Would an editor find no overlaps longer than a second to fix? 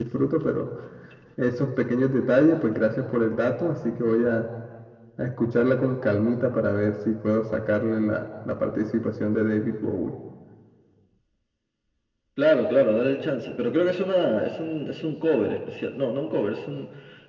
Yes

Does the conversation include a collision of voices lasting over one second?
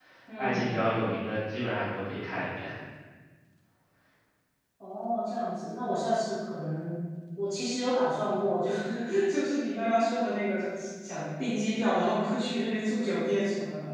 No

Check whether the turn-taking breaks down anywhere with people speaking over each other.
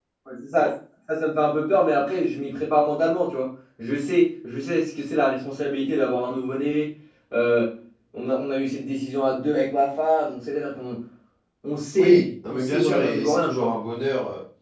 Yes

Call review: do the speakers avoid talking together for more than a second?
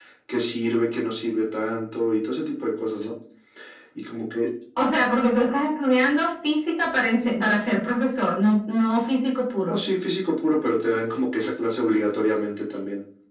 Yes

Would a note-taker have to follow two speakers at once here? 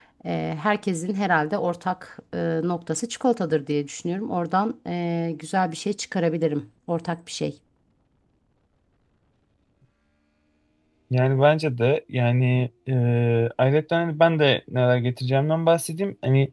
No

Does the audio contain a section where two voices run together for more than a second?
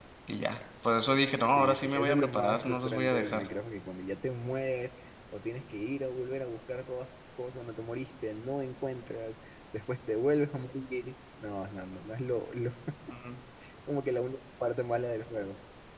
Yes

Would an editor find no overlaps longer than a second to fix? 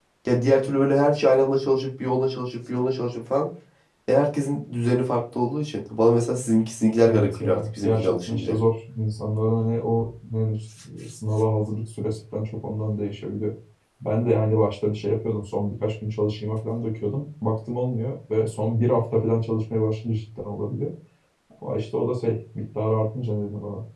No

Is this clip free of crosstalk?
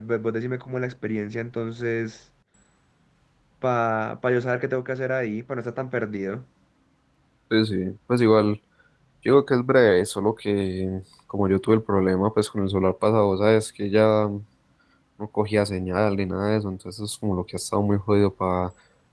Yes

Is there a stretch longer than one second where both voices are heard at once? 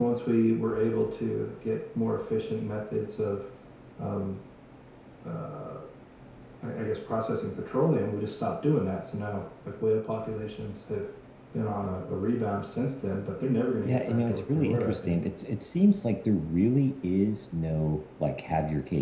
Yes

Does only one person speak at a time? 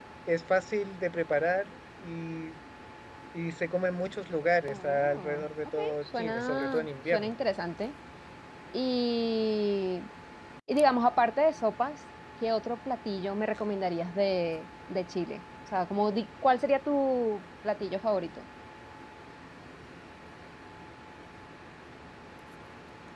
No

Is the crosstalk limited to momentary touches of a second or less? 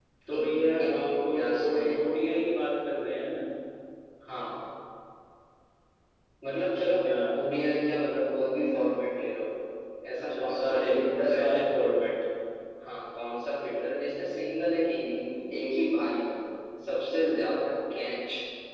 No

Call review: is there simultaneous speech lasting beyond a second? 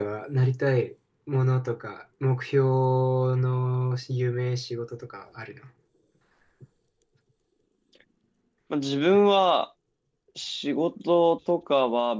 No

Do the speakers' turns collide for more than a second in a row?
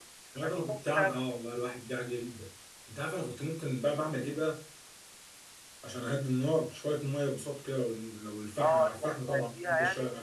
Yes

